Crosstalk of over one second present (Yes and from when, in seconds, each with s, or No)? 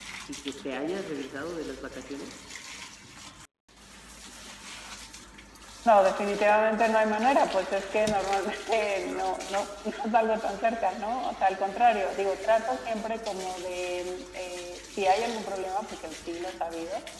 No